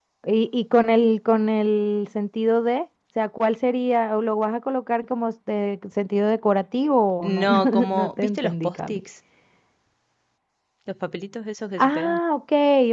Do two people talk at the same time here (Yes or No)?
Yes